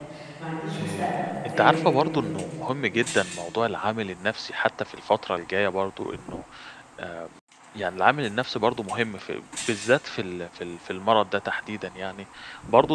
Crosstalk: present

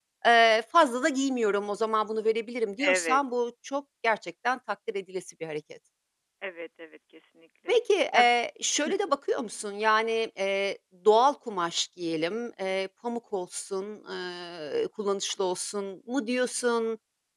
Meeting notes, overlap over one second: none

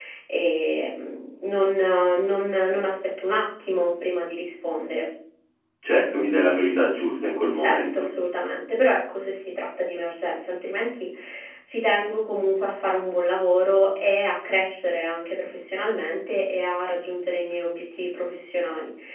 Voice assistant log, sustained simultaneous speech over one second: none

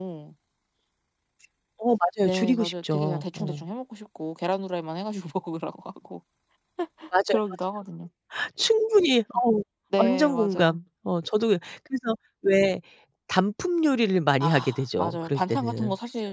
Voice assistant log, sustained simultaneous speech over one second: present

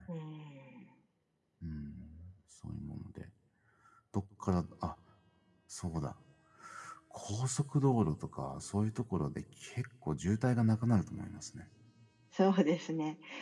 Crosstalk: none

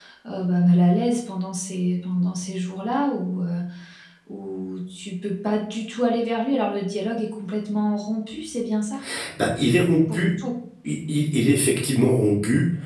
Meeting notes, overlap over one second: none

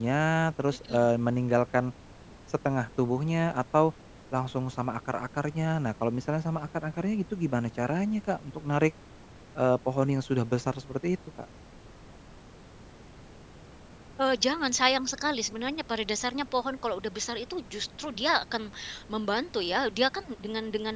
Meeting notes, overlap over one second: none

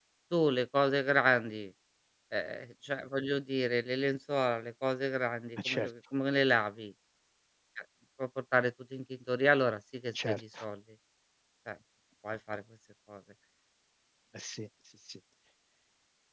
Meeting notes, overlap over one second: none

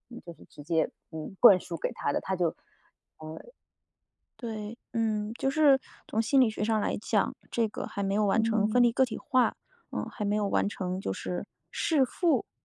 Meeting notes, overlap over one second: none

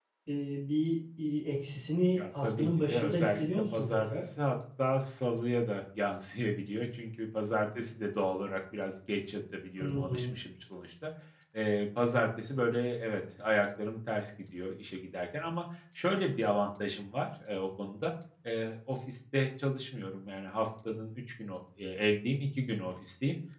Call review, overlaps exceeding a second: present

